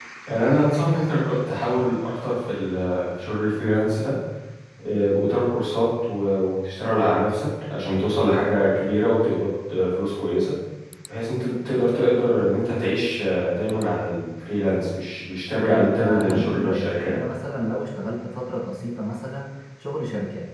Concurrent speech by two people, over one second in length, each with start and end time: 15.6-17.1

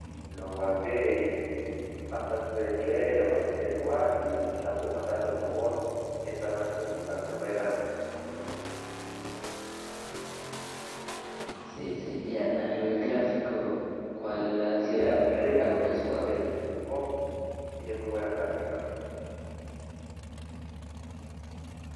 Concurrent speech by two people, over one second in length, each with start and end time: 14.7-16.3

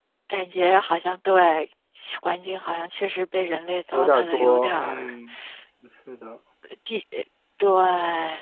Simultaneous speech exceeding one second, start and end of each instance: 3.9-5.1

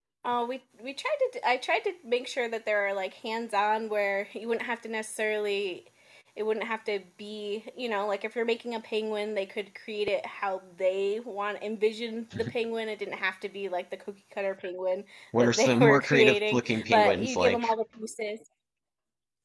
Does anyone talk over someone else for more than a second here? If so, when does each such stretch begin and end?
15.4-17.7

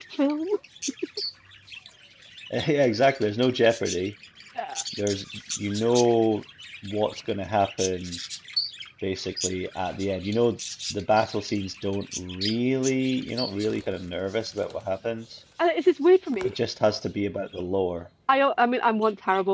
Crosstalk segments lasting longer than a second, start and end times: none

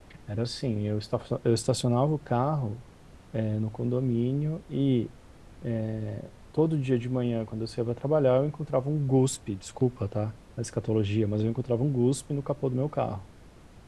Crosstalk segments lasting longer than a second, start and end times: none

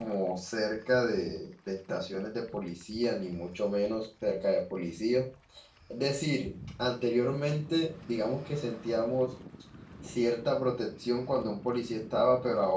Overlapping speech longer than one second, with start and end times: none

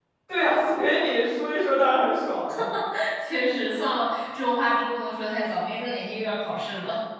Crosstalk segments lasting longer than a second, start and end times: none

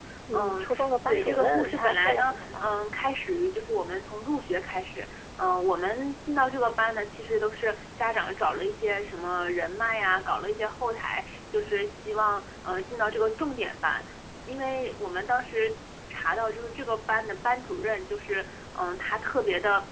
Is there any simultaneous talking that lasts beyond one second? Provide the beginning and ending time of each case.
1.1-2.7

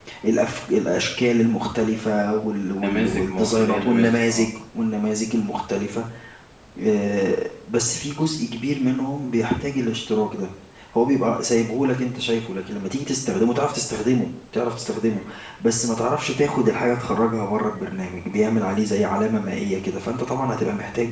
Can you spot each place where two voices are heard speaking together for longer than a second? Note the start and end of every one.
2.8-4.5

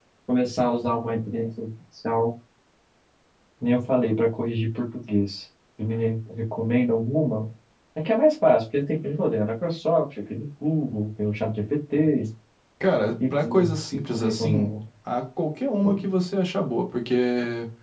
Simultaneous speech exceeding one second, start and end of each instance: 13.4-14.7

